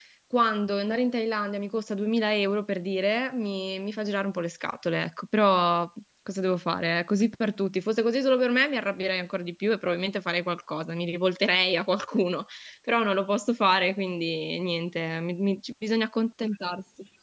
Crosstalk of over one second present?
No

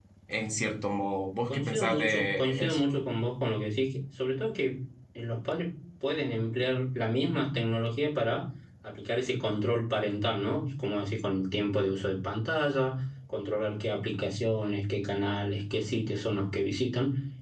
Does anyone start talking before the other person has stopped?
Yes, from 1.5 s

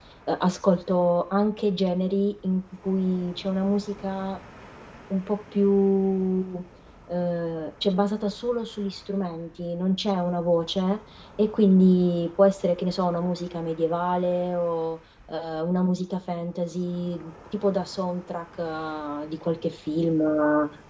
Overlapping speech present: No

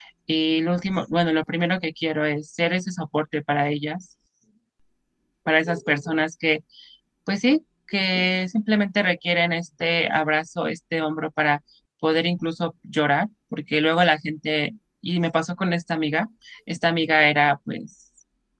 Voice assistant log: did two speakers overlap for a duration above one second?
No

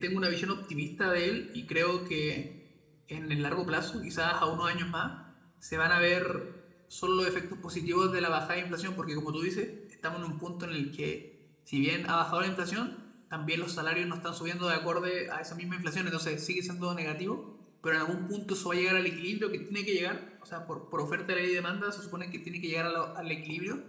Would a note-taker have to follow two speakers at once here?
No

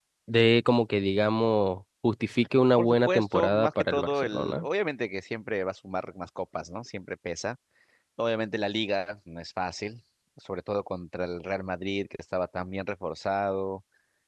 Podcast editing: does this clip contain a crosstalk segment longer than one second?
Yes, from 2.8 s

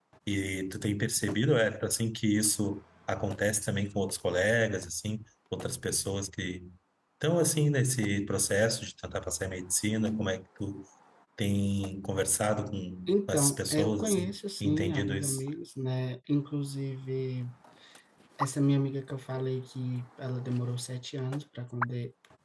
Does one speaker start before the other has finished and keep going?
Yes, from 13.1 s

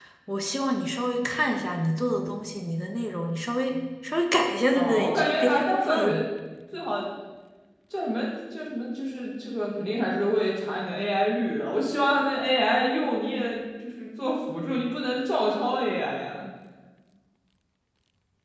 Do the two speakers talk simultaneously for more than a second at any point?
Yes, from 4.7 s

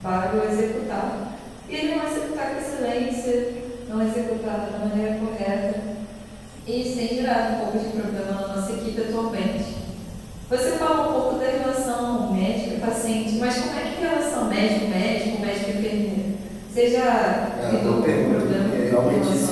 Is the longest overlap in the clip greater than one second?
Yes, from 17.5 s

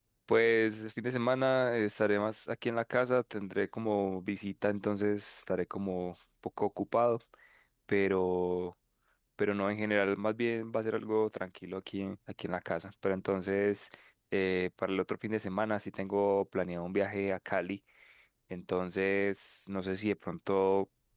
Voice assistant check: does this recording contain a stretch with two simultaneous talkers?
No

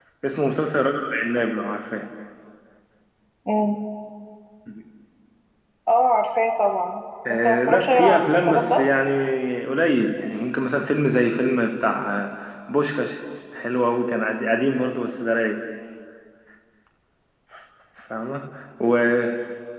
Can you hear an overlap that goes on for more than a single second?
Yes, from 7.2 s

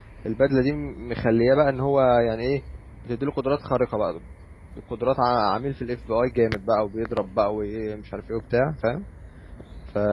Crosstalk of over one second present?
No

